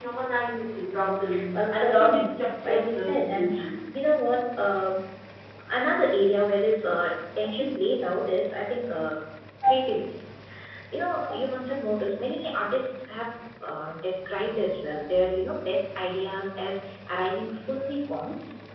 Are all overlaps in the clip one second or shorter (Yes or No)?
No